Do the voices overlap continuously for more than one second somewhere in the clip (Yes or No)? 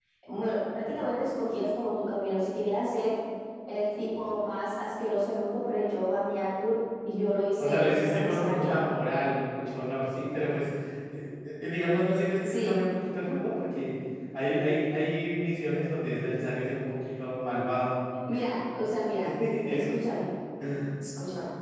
Yes